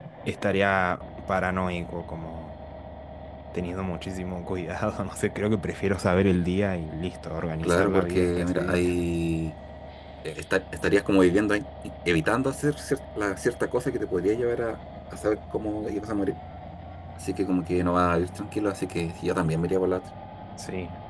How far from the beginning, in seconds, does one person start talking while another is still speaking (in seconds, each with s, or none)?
7.6 s